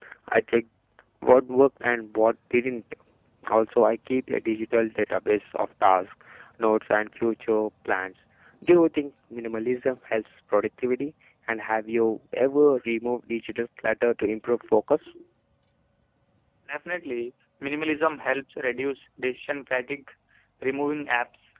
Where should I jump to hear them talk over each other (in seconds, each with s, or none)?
none